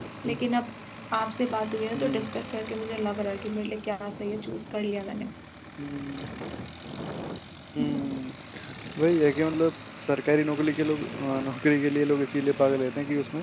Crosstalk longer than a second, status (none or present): none